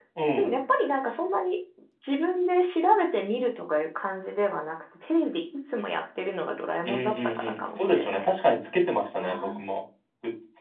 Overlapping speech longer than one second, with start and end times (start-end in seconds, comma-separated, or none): 6.8-8.3